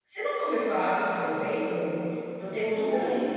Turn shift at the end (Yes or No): No